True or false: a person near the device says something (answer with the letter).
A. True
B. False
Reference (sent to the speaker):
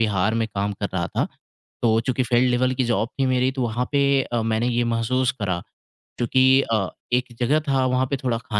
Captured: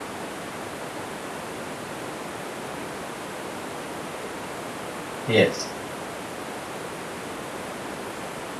A